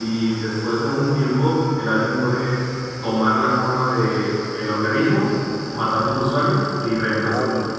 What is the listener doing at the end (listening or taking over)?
listening